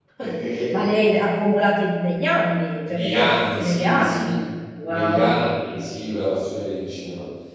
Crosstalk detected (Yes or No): Yes